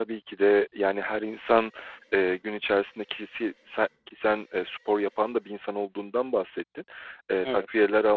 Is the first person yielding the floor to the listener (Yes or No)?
No